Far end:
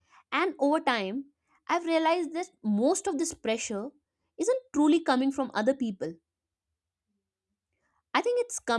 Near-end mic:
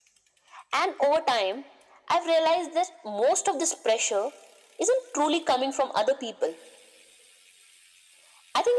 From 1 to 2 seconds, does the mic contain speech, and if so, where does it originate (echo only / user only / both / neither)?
echo only